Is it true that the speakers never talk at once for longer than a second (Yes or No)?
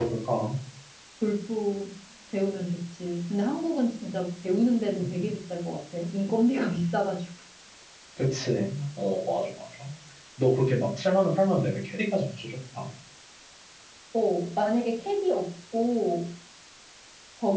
Yes